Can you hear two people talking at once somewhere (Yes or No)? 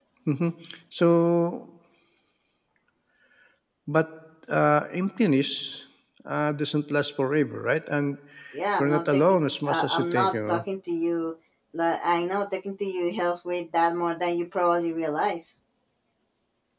Yes